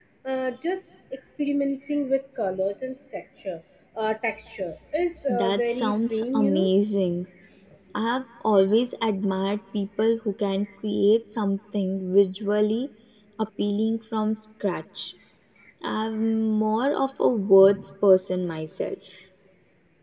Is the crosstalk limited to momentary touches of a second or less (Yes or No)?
No